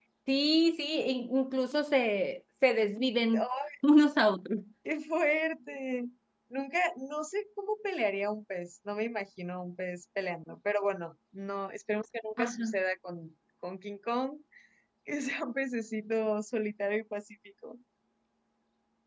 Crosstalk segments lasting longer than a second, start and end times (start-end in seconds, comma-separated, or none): none